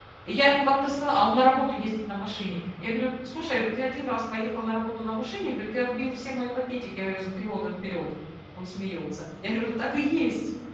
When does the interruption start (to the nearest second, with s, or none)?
none